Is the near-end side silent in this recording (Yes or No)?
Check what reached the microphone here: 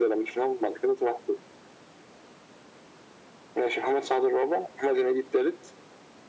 Yes